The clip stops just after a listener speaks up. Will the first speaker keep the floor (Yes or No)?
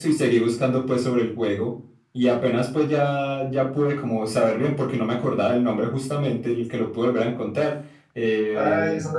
No